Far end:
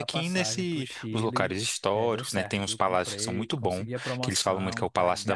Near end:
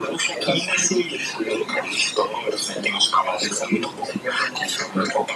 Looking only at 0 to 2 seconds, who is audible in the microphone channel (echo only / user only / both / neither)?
echo only